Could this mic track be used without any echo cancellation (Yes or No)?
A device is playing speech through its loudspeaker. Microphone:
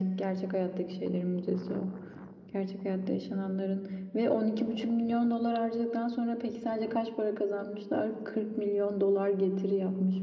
No